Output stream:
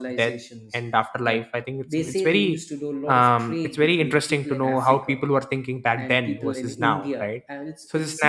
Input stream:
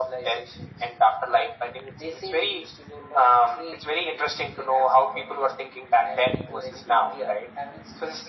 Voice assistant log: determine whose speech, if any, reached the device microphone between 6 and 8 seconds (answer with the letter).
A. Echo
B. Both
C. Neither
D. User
A